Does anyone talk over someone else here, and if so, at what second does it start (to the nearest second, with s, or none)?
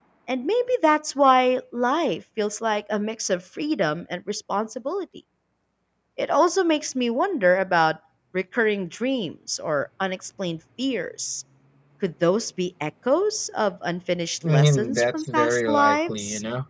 14 s